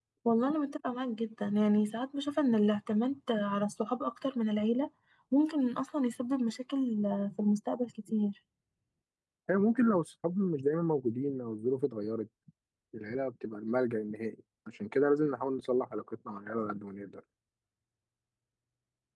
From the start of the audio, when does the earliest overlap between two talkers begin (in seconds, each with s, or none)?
none